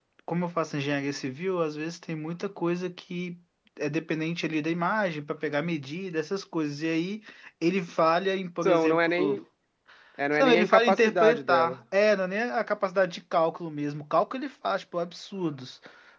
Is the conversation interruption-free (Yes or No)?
No